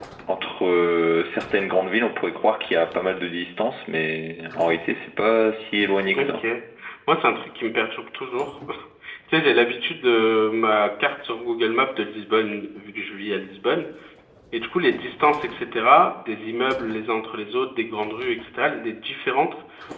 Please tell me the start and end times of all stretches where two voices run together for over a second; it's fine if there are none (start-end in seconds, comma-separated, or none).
none